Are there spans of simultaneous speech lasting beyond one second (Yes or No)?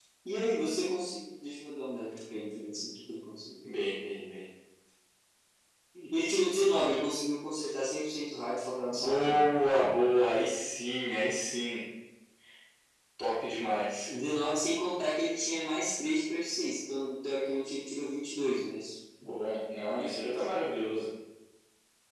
No